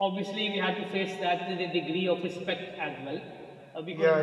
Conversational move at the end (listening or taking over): listening